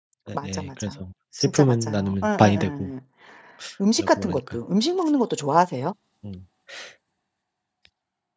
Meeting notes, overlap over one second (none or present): present